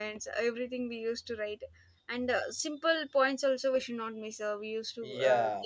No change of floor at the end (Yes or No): No